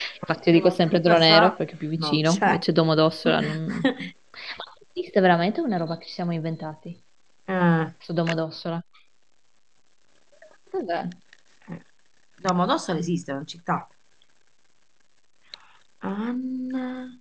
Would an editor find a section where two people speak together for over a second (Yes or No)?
Yes